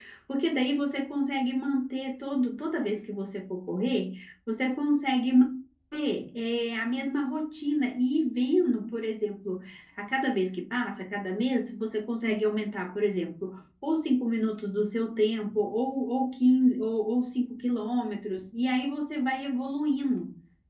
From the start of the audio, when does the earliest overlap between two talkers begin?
none

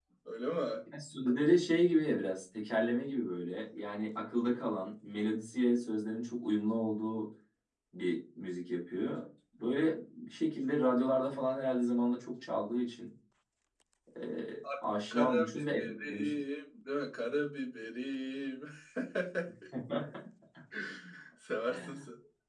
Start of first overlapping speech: 15 s

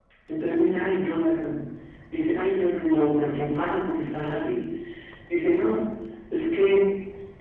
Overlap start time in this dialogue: none

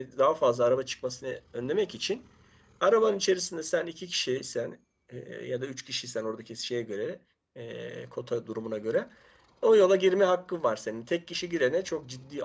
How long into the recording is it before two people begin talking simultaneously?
none

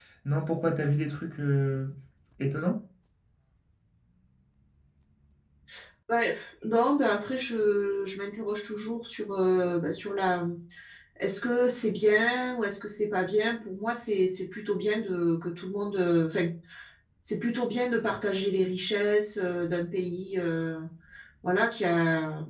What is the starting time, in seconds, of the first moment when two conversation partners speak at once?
none

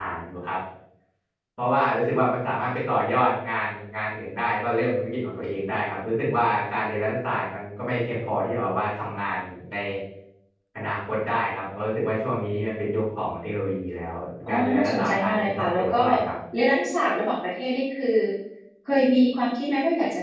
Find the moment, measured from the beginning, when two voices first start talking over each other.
14 s

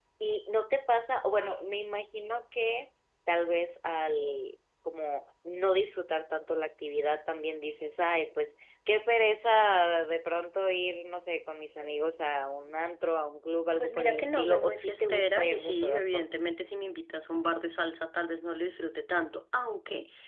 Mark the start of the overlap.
14 s

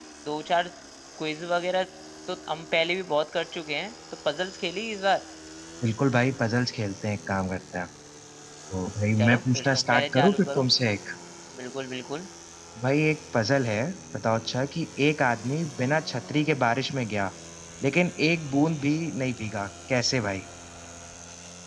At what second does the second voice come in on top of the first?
9 s

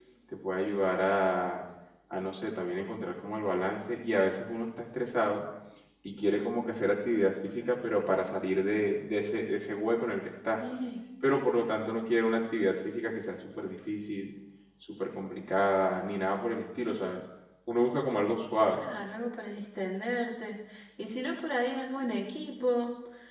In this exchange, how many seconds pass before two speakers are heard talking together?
none

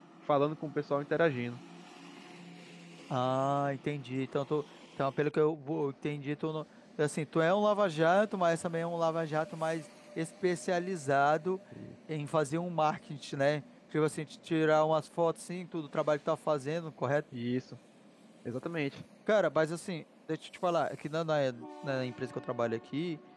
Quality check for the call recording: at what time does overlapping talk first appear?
none

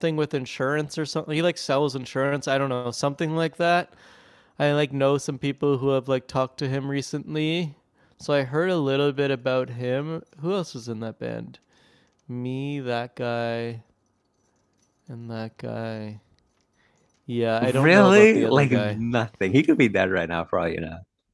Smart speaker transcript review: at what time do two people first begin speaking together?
18 s

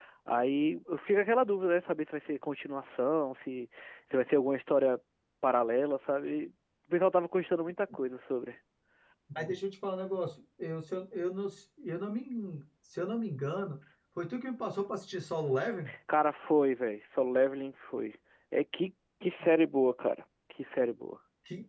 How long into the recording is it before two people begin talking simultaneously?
none

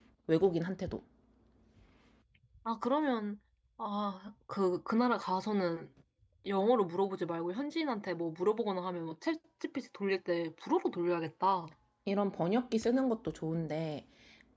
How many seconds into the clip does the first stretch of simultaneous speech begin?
none

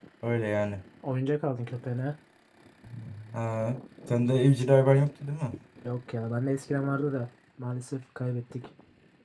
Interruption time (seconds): none

